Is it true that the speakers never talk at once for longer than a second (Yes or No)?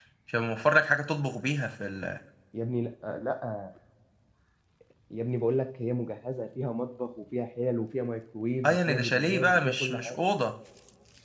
No